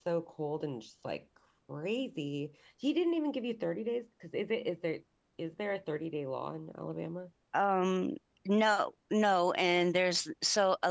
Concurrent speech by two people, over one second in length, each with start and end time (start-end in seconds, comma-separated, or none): none